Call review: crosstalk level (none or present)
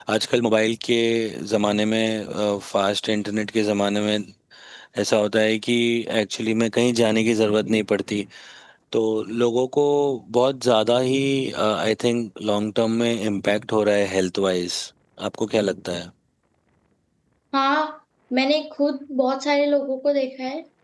none